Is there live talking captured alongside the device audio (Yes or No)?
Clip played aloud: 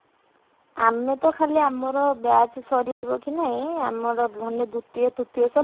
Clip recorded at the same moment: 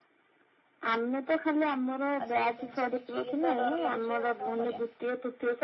Yes